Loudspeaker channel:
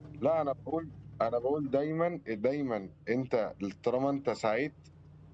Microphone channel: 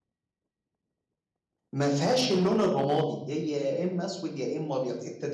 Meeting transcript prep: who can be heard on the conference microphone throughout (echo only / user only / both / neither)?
user only